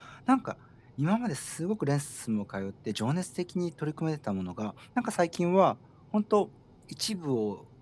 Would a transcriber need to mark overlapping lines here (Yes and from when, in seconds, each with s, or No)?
No